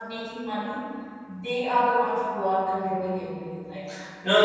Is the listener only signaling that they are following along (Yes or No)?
No